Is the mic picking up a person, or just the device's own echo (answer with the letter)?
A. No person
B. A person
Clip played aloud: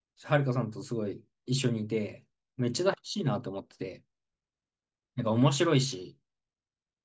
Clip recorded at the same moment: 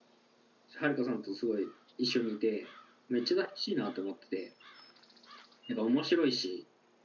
A